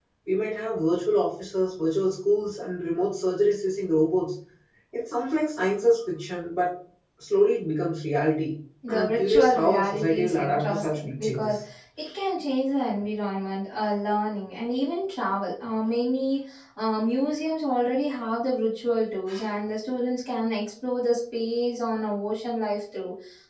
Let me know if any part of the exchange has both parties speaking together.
Yes, from 8.8 s

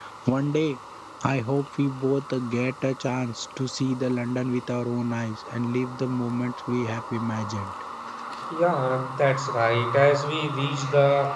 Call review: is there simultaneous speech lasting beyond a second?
No

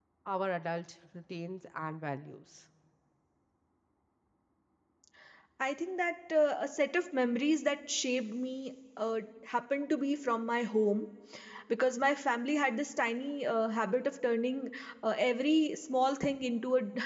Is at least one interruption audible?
No

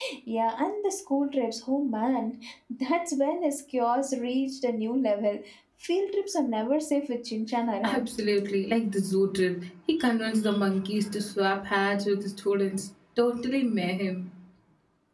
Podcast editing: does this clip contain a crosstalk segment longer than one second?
No

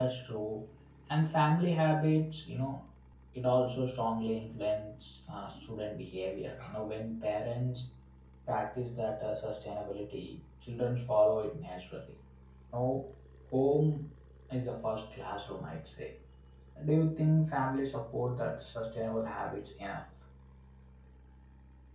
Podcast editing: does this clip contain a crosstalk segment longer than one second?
No

